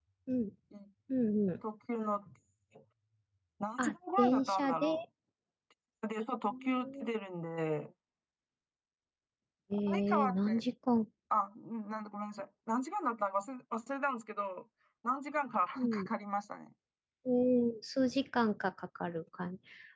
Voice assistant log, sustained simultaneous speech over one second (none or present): present